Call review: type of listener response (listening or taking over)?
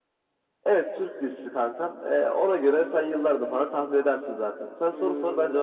taking over